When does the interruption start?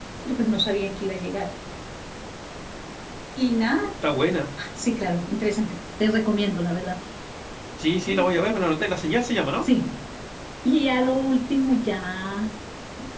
none

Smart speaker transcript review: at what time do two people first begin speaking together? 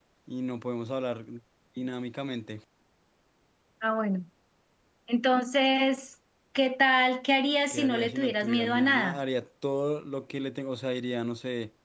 8 s

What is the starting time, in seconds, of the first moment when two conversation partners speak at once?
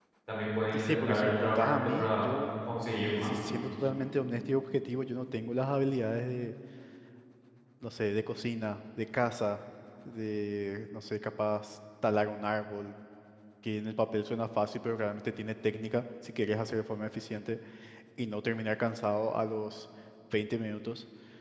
1 s

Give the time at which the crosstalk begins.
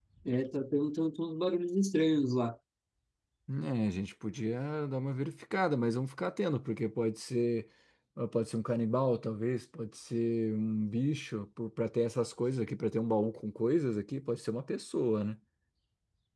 none

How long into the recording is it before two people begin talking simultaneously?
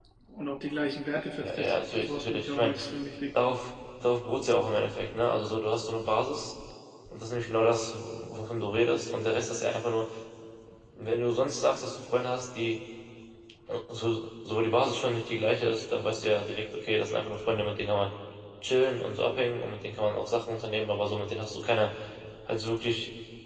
1 s

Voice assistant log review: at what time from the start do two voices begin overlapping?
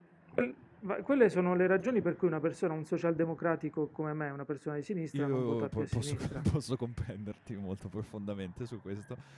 5 s

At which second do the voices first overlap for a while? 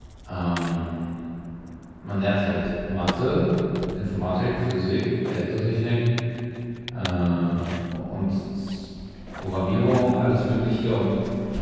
none

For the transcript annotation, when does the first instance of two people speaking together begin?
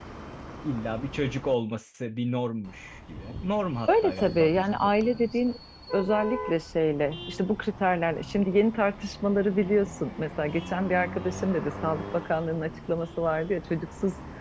4 s

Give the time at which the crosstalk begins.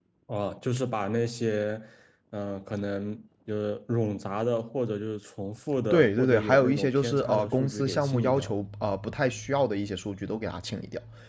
6 s

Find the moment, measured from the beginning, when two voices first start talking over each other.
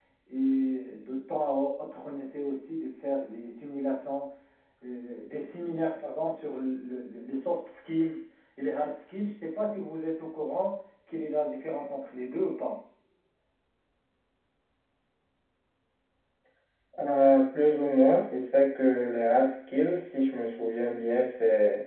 none

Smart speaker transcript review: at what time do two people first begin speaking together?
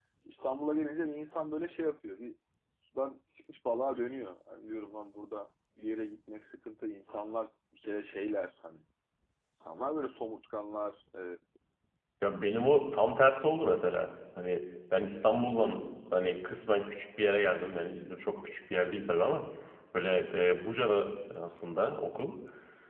none

